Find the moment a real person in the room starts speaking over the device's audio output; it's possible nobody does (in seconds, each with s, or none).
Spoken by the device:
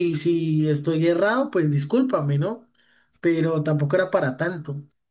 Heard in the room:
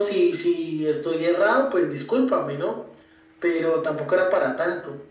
none